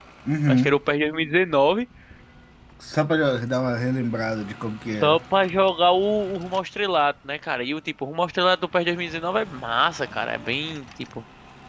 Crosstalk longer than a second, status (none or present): none